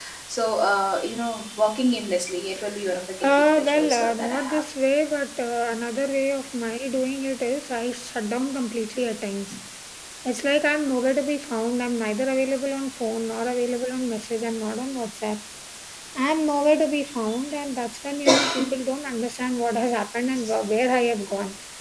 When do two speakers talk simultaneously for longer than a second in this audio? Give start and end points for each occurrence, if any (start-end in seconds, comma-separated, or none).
3.3-4.6